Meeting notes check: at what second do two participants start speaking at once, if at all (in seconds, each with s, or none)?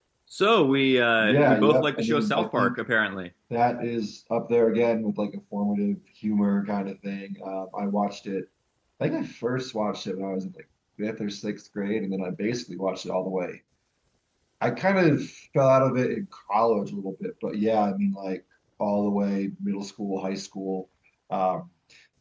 1.2 s